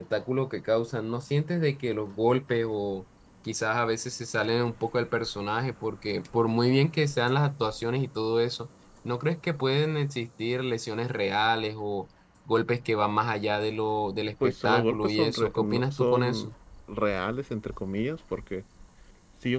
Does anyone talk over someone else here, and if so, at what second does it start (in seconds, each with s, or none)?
14.4 s